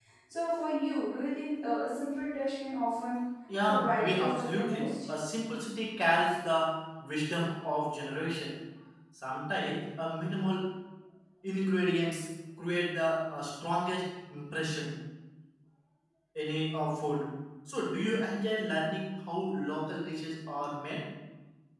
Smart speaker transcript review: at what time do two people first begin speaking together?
3.5 s

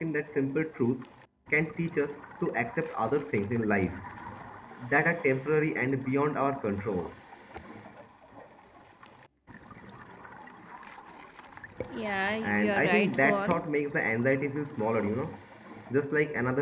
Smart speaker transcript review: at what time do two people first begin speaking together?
12.4 s

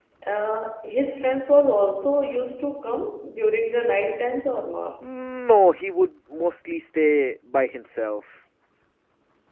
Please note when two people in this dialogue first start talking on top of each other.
none

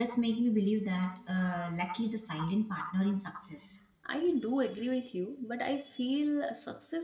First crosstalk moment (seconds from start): none

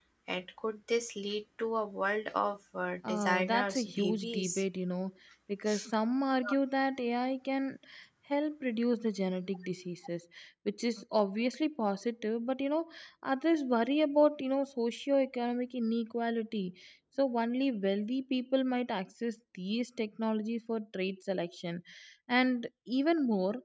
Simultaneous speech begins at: 3.0 s

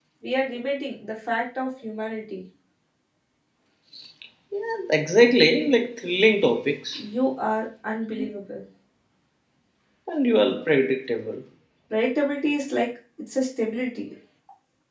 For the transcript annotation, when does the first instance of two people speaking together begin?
none

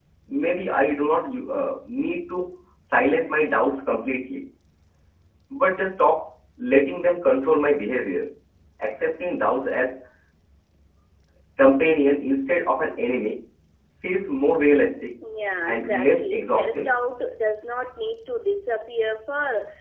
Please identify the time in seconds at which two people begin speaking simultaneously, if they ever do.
15.7 s

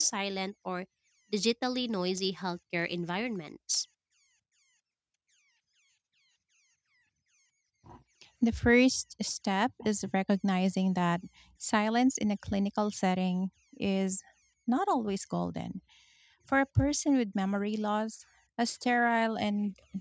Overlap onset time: none

